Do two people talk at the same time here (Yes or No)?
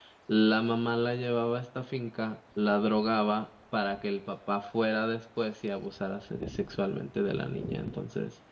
No